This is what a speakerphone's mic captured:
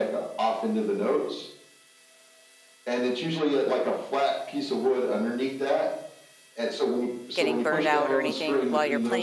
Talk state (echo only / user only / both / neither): both